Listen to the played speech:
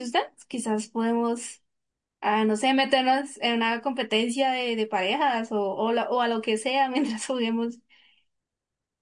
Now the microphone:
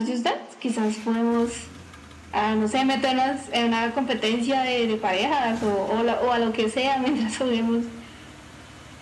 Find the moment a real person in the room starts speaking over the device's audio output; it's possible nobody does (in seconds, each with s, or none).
none